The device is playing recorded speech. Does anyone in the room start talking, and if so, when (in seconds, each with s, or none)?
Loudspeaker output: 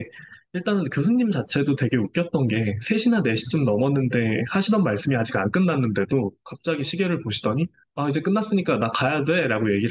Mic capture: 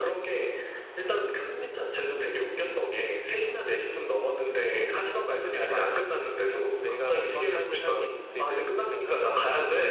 4.5 s